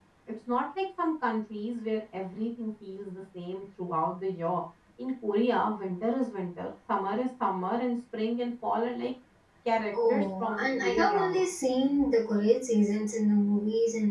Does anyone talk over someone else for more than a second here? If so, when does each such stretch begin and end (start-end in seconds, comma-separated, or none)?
10.1-11.5